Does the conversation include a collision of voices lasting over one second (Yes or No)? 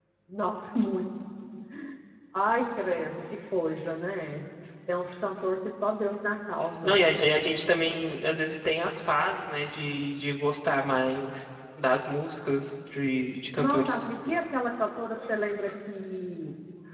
No